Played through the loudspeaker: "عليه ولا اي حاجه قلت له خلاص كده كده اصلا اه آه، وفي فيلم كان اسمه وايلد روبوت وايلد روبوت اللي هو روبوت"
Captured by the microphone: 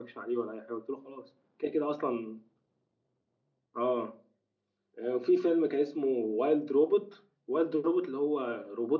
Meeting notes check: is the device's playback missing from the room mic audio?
No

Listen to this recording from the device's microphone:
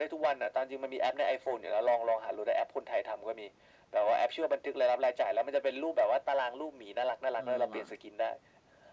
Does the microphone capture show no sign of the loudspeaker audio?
No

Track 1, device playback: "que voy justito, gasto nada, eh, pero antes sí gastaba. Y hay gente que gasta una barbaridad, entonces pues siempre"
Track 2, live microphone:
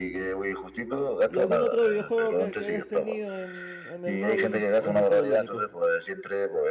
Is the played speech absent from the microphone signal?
No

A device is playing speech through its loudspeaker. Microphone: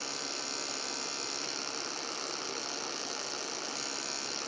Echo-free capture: Yes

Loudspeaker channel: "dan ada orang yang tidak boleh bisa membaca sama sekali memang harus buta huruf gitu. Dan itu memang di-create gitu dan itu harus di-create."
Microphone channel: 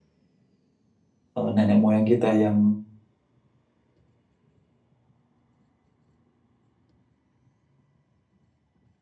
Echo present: No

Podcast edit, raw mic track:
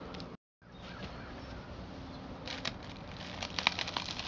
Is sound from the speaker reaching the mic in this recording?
No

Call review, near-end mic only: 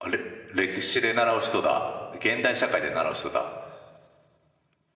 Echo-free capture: Yes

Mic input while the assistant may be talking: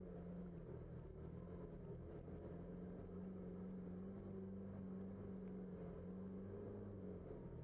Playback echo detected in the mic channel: No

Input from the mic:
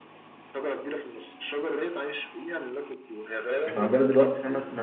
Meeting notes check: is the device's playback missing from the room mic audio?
No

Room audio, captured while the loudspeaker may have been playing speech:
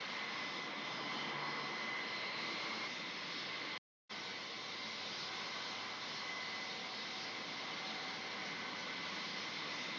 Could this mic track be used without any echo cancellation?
Yes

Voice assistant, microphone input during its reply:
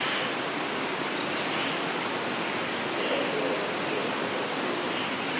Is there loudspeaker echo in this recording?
No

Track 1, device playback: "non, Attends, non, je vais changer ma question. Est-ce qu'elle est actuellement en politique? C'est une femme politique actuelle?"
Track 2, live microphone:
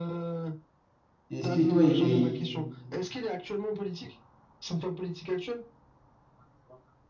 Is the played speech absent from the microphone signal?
No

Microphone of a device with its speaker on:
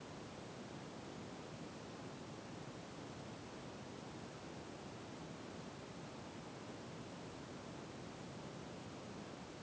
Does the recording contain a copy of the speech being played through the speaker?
No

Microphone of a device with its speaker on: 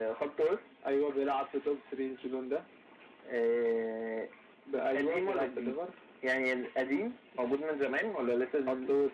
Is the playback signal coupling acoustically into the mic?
Yes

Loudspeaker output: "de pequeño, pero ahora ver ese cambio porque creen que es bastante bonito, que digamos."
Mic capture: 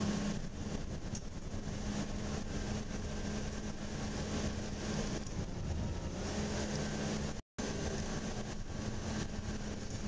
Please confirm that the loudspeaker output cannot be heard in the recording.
Yes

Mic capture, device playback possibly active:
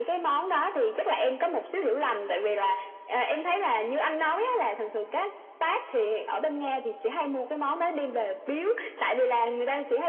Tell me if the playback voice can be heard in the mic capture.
Yes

